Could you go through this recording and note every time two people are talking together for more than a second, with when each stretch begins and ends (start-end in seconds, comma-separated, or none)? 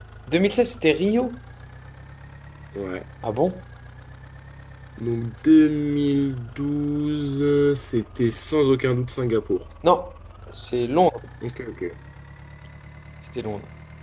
none